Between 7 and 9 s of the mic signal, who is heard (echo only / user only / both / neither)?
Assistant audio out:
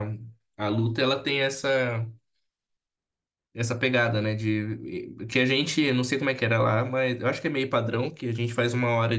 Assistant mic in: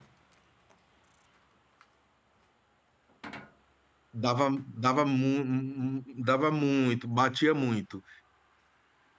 user only